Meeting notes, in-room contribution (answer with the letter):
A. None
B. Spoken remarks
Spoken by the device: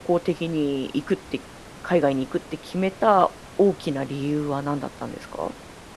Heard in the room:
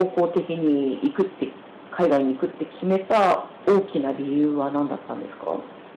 A